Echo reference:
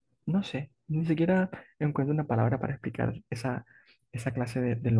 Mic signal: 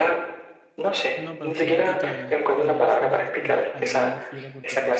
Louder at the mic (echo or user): echo